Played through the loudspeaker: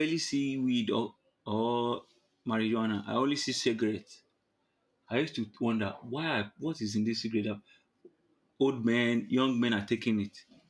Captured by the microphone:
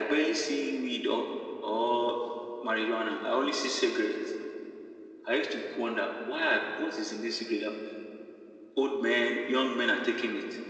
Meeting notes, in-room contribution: none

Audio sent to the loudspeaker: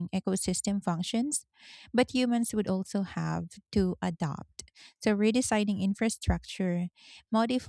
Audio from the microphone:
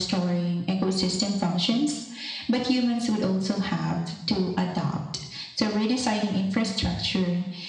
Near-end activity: none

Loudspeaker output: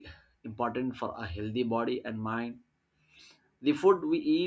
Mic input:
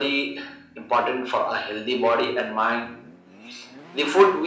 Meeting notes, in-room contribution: none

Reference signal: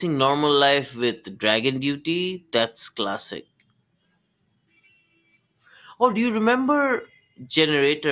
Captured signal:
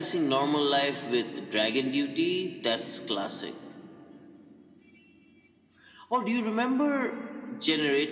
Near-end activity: none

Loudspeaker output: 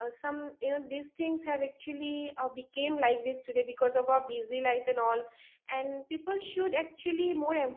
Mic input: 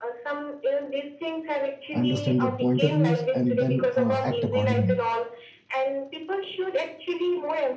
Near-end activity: present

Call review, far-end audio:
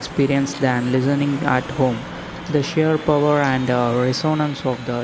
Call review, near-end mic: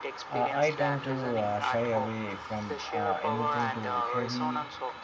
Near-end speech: present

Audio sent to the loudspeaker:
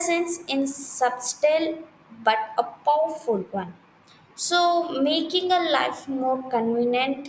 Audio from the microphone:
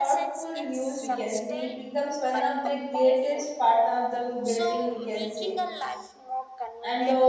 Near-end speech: present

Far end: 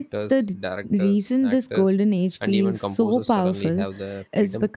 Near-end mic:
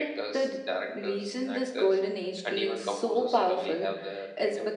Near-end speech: none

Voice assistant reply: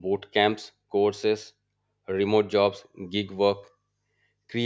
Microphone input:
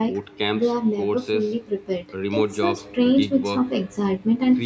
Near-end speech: present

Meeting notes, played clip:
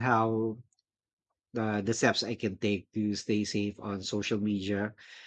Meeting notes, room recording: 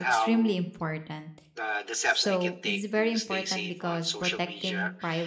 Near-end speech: present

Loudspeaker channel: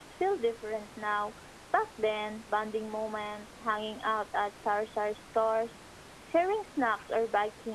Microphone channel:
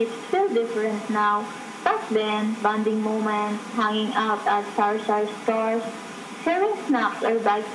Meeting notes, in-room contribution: none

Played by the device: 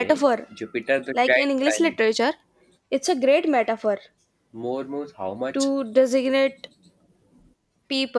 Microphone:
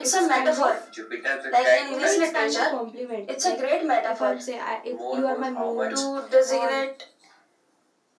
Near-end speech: present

